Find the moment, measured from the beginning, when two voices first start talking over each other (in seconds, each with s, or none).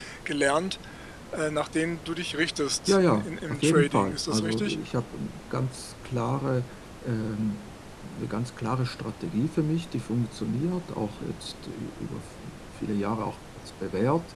2.9 s